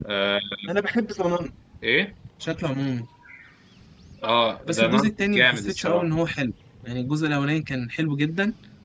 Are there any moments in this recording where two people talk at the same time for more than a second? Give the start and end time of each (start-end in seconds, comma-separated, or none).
4.6-6.1